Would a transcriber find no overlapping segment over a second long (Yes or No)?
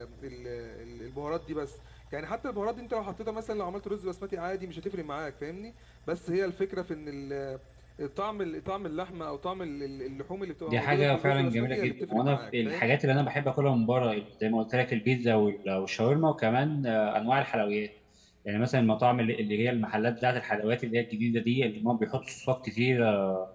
No